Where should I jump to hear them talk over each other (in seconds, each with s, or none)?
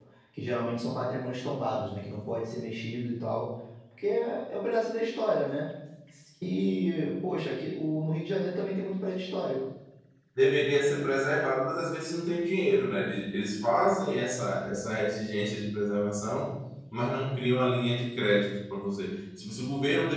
none